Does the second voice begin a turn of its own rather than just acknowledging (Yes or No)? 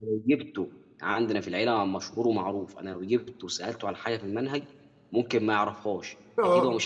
No